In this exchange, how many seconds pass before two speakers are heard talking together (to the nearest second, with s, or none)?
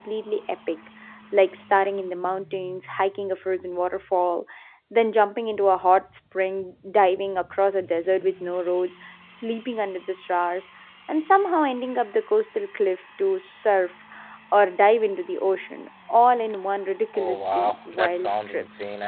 17 s